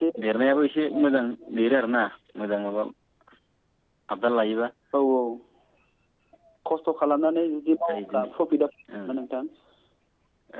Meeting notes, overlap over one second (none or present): none